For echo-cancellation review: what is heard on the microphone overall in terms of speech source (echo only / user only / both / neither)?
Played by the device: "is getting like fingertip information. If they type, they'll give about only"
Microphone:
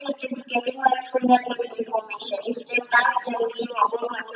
echo only